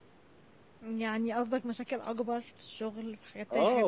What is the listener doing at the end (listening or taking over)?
taking over